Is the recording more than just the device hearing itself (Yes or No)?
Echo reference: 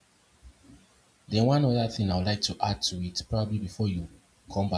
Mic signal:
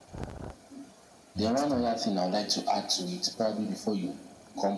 Yes